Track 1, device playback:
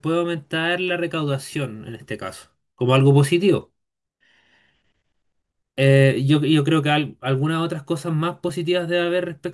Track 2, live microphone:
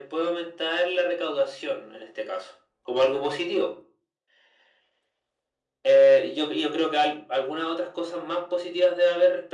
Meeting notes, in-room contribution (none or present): none